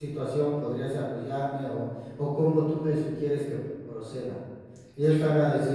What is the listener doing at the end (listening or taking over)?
listening